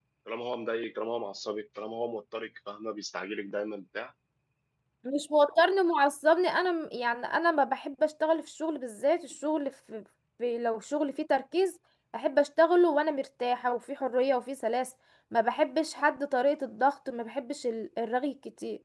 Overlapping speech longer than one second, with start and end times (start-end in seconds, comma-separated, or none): none